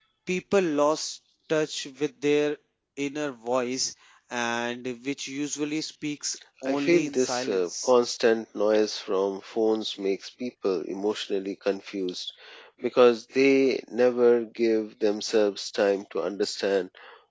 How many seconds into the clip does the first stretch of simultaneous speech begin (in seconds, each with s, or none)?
6.6 s